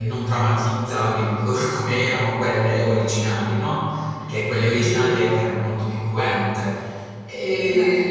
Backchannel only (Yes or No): Yes